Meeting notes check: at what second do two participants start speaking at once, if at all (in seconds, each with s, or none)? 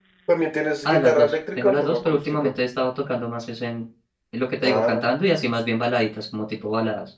0.8 s